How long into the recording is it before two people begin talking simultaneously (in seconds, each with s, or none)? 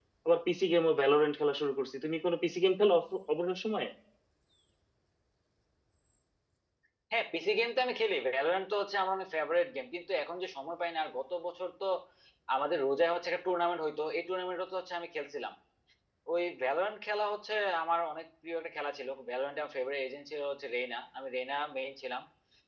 none